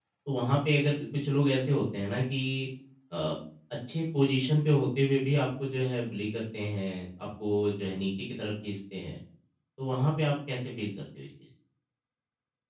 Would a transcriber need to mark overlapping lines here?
No

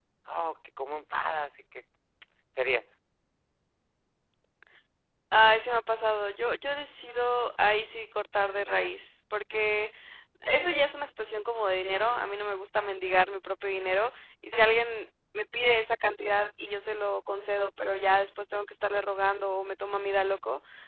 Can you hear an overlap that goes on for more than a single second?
No

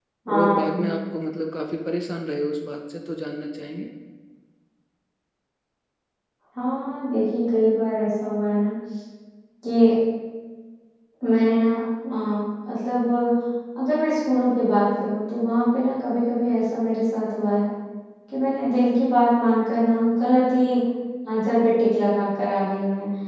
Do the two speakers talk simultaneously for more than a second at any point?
No

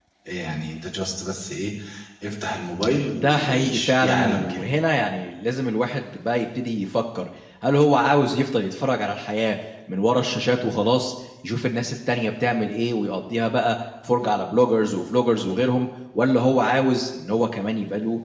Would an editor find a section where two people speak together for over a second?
Yes, from 3.2 s

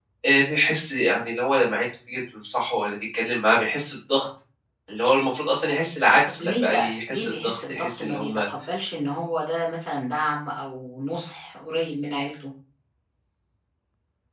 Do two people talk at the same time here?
Yes, from 6.3 s

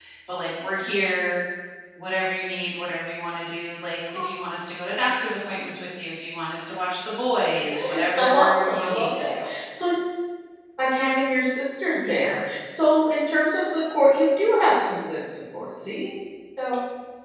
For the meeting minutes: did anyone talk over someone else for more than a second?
Yes, from 7.7 s

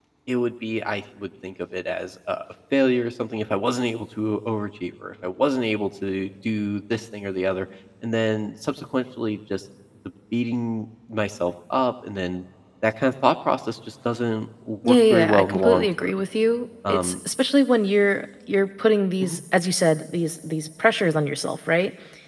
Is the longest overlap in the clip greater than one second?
Yes, from 14.8 s

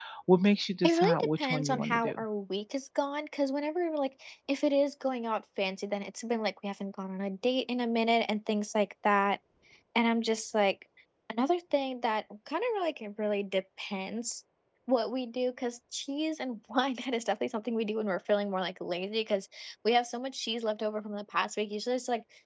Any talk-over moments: Yes, from 0.8 s

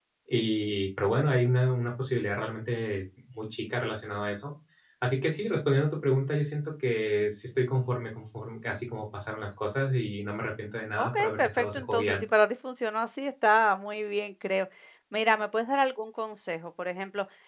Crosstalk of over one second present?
Yes, from 10.9 s

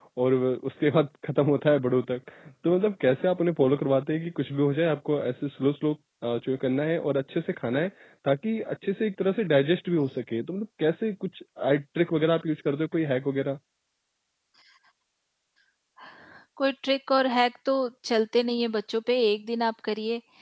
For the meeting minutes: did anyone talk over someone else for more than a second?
No

